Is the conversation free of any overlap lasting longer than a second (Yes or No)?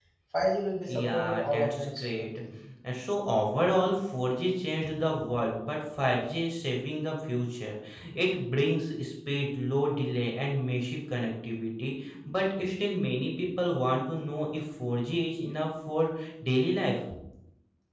No